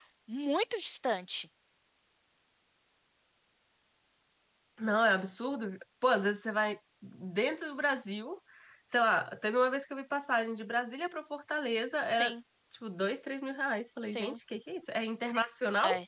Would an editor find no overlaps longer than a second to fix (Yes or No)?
Yes